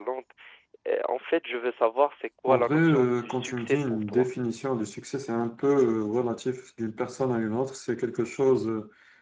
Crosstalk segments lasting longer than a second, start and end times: 2.5-4.2

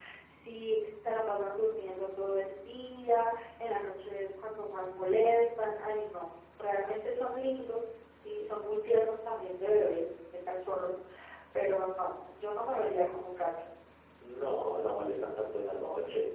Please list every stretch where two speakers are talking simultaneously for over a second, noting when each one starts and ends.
none

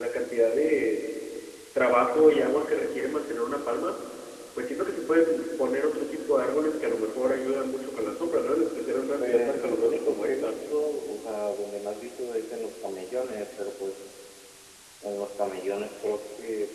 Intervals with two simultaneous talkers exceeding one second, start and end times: 9.2-10.6

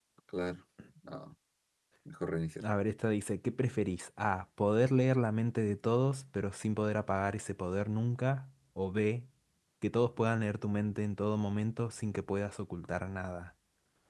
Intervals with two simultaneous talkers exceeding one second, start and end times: none

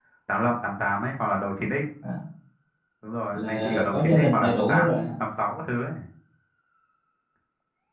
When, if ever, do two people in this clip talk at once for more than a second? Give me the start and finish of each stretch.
3.3-5.0

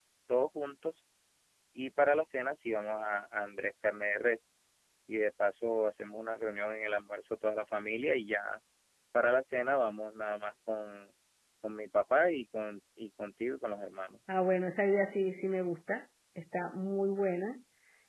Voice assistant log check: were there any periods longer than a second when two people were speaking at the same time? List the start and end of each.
none

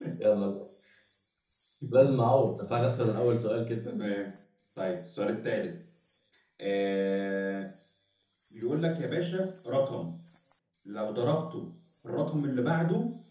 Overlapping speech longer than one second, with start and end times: none

